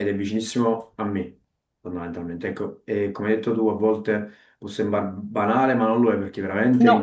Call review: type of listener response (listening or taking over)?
listening